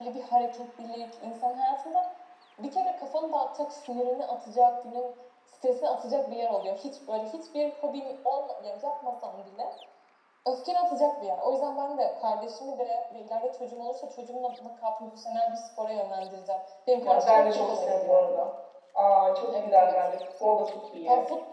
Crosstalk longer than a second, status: present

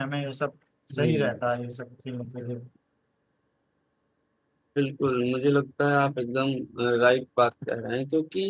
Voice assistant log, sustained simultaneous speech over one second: none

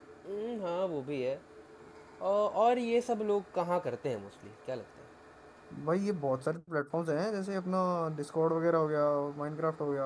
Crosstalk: none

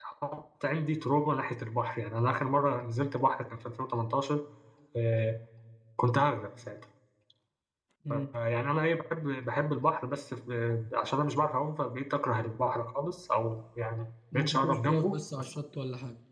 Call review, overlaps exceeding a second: present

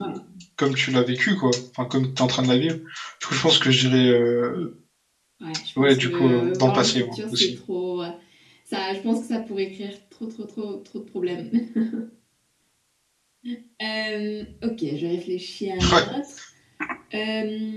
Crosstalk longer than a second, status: present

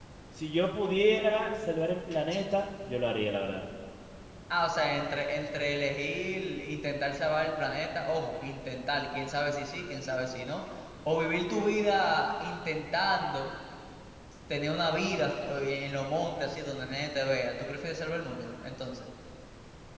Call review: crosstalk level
none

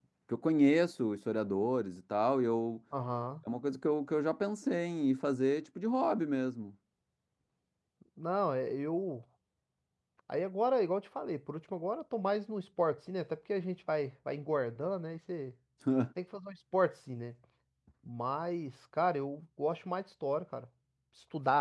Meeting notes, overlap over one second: none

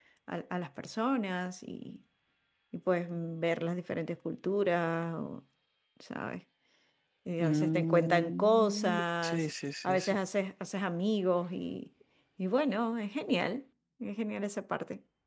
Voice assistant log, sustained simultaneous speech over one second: present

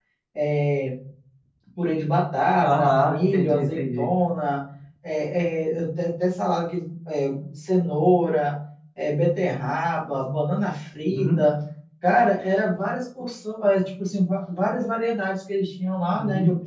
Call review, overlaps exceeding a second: present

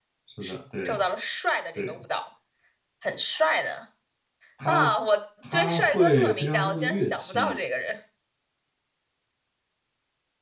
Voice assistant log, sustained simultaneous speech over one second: present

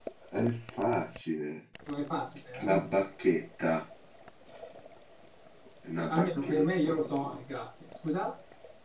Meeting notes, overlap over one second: present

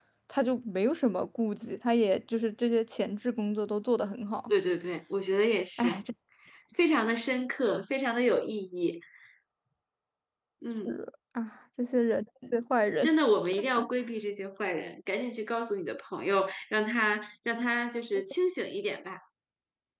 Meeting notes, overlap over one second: none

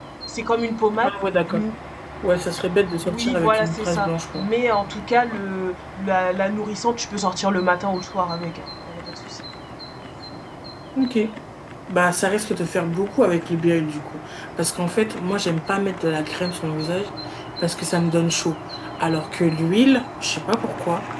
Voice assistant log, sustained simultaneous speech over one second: present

